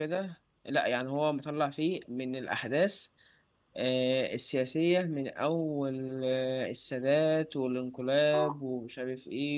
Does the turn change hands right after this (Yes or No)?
No